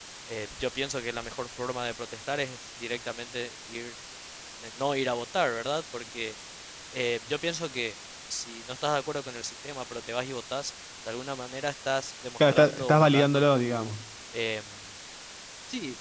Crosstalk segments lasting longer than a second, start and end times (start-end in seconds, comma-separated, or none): 12.5-13.9